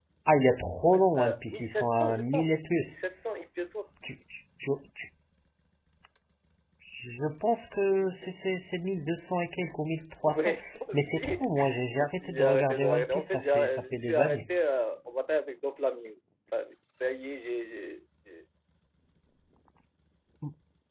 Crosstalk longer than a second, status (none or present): present